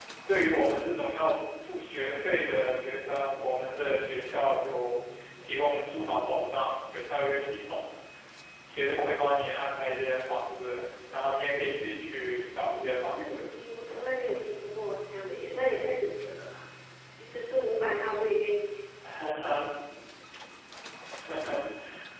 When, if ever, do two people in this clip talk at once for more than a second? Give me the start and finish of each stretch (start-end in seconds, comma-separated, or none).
none